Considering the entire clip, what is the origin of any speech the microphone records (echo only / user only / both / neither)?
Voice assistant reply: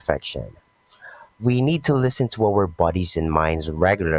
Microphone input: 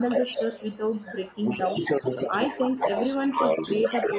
both